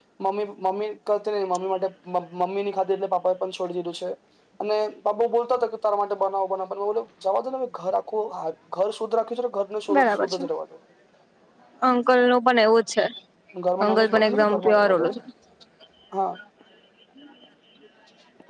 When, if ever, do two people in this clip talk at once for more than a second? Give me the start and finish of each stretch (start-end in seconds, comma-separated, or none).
13.8-15.1